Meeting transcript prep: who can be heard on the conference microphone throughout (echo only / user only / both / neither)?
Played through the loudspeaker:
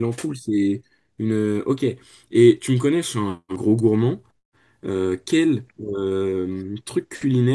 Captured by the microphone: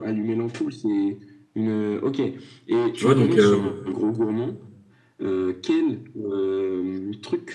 both